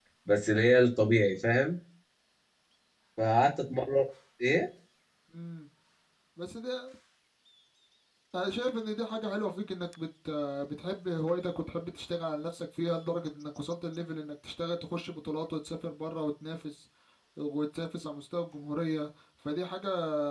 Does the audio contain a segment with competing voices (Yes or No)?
No